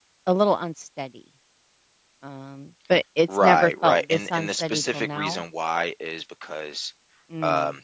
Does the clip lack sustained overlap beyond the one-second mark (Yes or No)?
No